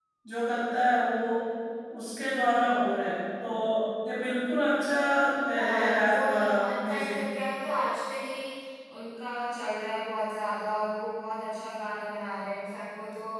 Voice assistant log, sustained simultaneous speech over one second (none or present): present